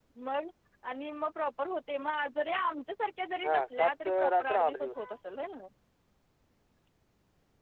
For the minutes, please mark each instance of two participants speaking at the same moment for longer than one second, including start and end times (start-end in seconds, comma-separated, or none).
3.4-5.0